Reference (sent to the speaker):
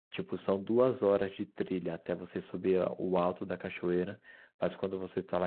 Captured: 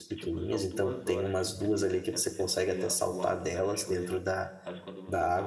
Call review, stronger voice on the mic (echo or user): user